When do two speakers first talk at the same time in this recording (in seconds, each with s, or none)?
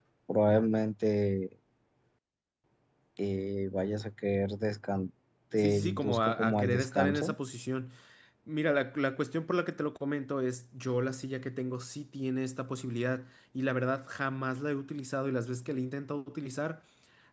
5.6 s